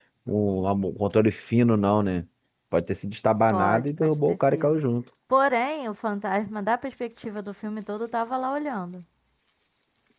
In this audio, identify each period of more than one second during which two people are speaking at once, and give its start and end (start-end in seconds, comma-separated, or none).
3.5-4.8